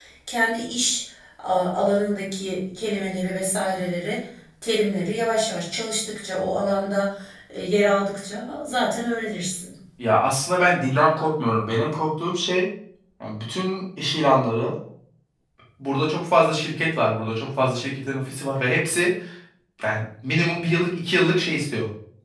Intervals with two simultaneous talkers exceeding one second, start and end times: none

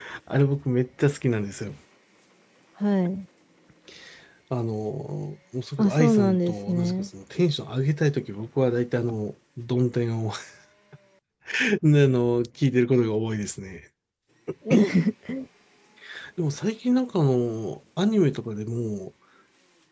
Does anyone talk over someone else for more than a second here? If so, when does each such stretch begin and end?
5.8-7.1

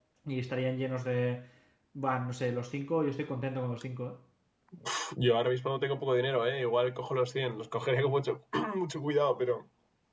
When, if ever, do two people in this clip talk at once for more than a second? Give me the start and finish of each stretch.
none

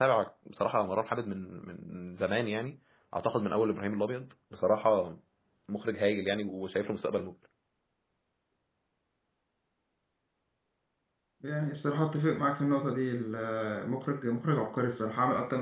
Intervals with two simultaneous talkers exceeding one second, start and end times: none

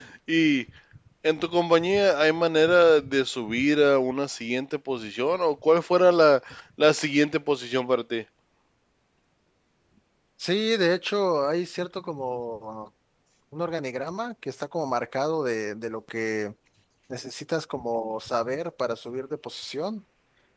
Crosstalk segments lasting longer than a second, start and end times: none

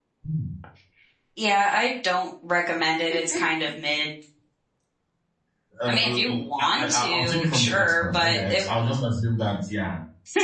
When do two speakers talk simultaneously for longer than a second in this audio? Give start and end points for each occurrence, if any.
5.9-8.6

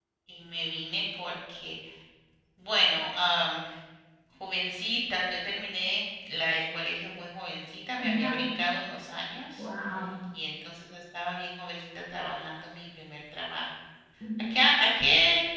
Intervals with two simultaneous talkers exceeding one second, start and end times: none

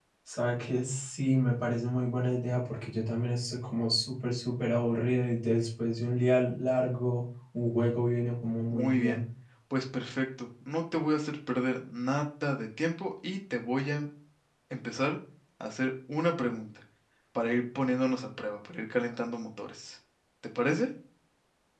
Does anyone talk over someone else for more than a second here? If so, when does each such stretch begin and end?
none

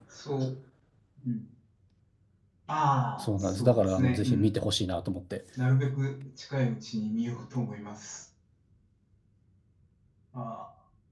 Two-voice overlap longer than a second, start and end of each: 3.2-4.5

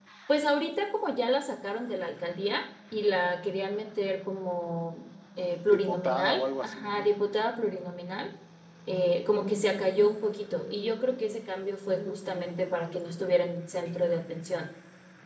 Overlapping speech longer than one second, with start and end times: 5.7-7.1

